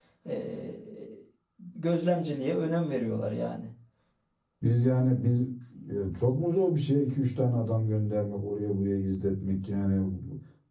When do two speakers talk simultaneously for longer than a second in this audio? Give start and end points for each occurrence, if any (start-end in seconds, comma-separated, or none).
none